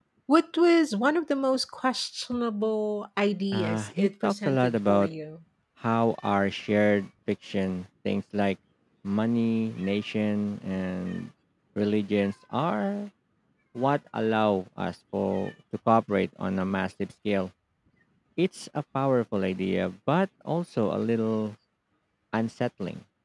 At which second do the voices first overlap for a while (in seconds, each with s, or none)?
3.5 s